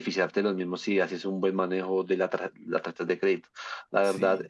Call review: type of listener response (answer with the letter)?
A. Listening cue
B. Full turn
A